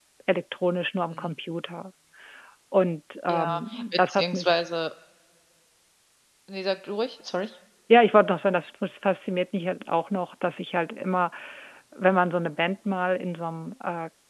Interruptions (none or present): present